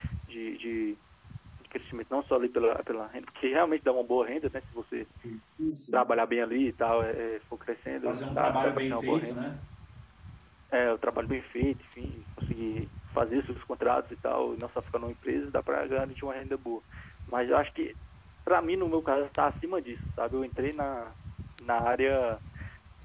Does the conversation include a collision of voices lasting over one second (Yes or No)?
Yes